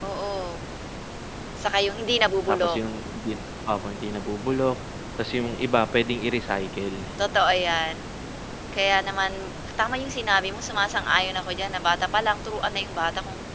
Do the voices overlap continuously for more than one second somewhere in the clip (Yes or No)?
No